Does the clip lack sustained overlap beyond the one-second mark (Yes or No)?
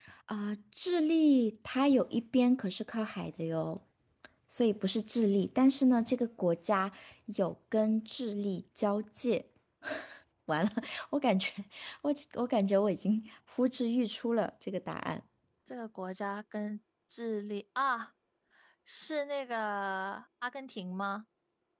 Yes